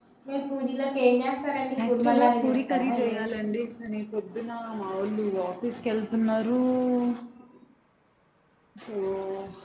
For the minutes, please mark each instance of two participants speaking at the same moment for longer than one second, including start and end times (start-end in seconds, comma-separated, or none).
1.9-3.5